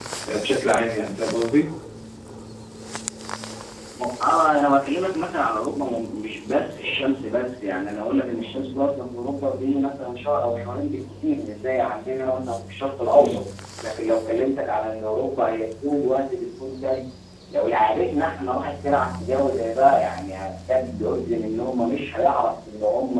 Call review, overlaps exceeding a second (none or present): none